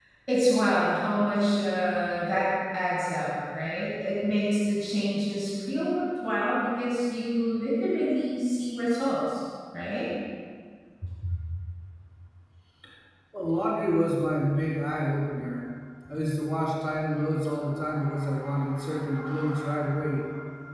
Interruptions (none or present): none